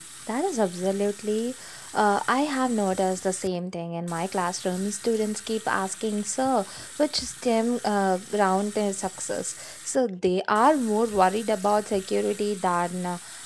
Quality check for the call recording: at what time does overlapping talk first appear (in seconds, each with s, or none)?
none